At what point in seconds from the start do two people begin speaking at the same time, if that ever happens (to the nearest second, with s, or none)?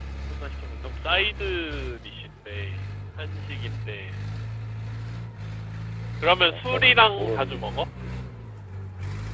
6 s